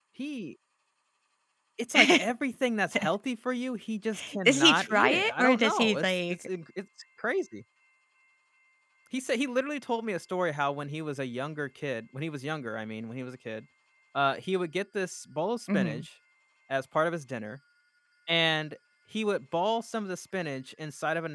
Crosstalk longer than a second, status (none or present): present